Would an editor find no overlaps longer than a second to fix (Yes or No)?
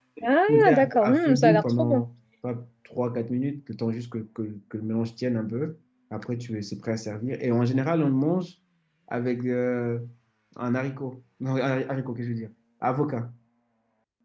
No